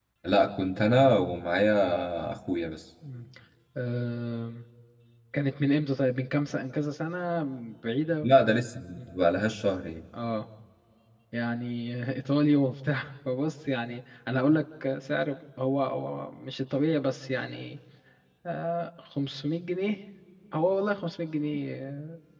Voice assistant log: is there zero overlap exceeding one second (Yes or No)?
Yes